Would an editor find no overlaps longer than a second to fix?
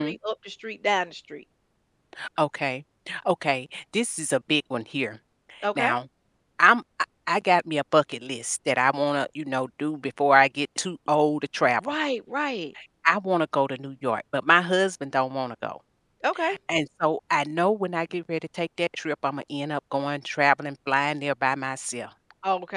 Yes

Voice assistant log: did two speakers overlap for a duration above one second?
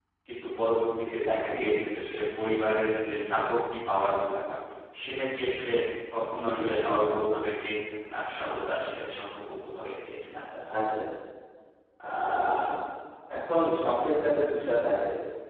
No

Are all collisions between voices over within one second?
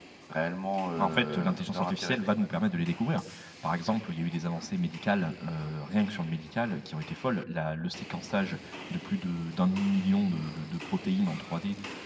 No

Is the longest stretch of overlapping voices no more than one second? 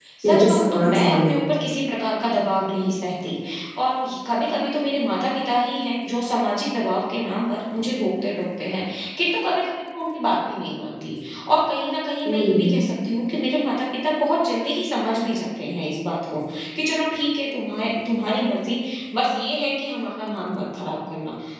No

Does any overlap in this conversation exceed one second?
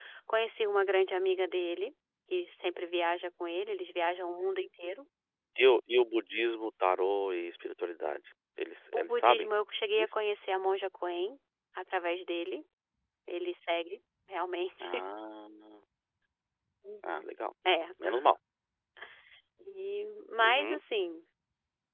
No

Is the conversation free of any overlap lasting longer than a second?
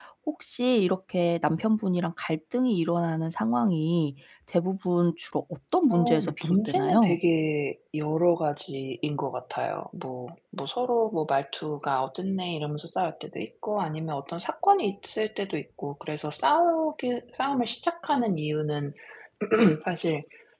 No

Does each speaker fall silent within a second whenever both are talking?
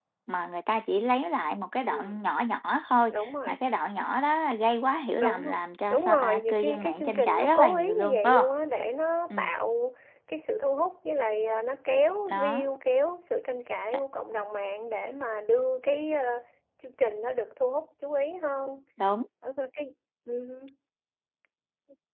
No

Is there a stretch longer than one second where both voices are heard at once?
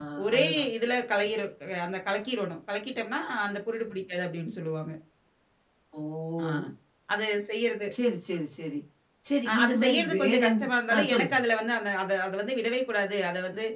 Yes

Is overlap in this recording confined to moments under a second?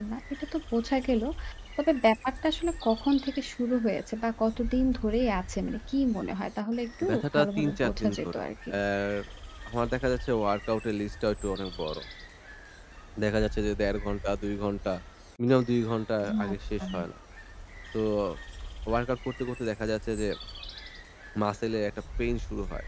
No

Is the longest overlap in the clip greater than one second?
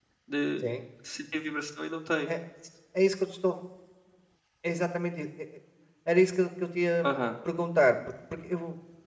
No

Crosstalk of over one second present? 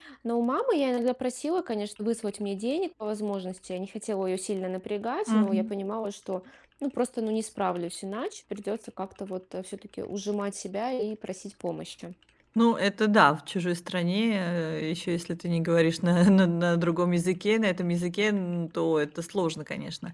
No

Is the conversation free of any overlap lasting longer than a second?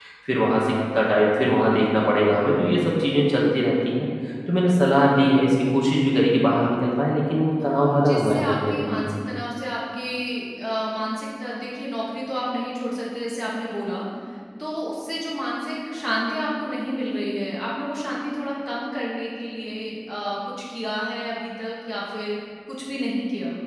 No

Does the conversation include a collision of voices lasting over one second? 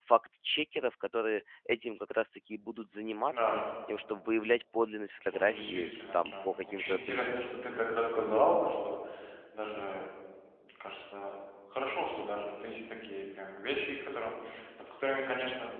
Yes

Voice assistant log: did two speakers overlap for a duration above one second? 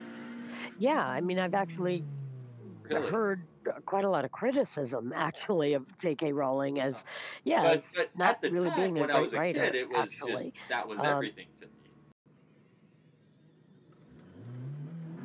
Yes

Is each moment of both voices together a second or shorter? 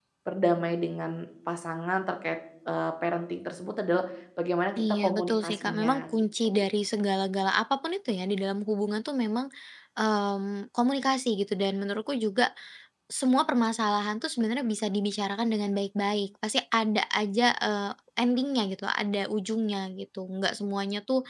No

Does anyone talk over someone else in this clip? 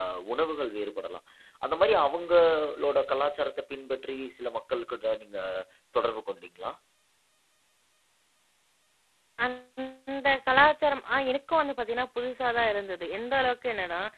No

